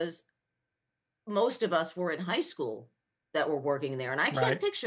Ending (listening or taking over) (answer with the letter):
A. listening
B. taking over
A